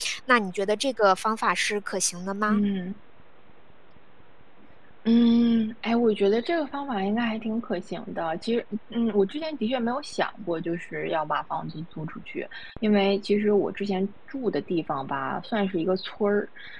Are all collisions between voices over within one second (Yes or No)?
Yes